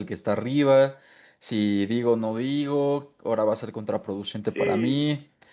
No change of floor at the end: Yes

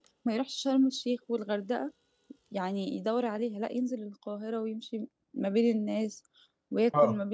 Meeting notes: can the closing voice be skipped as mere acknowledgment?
No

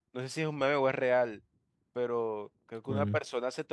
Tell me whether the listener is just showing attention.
Yes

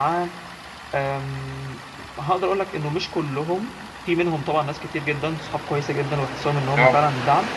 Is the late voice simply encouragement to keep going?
Yes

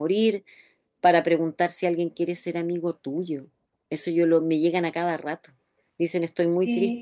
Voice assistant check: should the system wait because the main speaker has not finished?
Yes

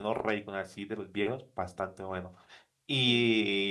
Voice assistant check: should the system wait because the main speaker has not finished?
Yes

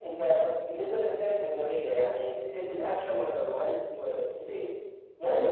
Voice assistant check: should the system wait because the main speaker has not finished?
No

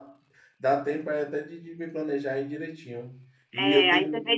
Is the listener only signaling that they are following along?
No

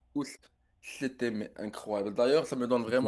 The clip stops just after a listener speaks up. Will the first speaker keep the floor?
Yes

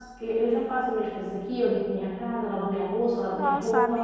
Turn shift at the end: Yes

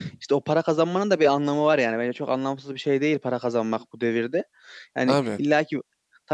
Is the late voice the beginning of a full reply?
No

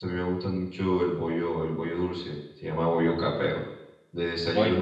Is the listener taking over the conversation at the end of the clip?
No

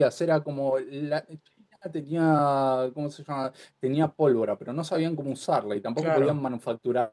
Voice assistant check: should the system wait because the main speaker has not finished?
Yes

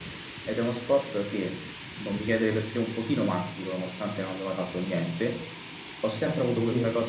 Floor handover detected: No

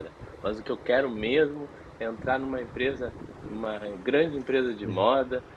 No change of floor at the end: Yes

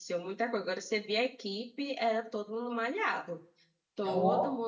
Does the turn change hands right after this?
No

